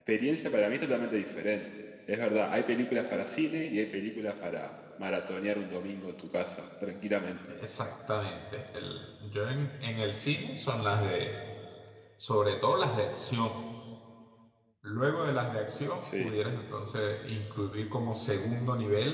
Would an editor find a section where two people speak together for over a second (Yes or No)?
No